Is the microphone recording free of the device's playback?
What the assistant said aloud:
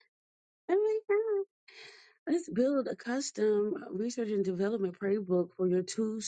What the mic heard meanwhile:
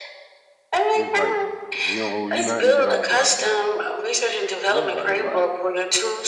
No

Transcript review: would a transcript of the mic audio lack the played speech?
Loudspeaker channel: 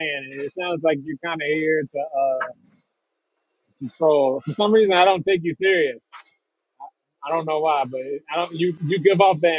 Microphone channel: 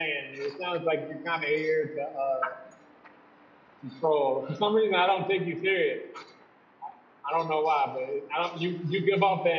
No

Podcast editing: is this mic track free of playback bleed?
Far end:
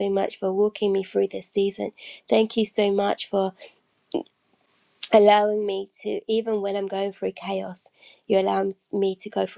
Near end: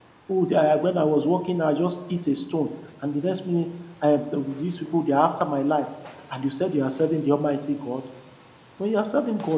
Yes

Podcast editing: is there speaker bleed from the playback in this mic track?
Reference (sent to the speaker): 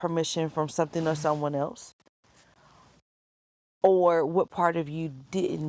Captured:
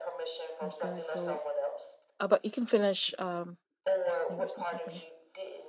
Yes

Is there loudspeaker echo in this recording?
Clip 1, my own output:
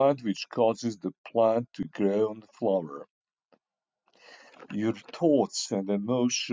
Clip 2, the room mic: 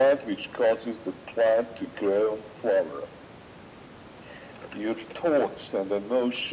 Yes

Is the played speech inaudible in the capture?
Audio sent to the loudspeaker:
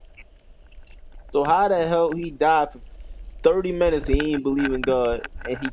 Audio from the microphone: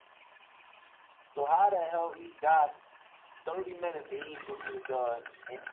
No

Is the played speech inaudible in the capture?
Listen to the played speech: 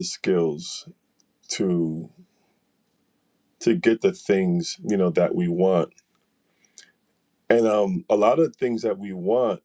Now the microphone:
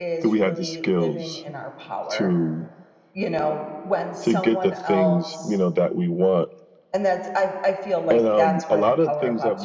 No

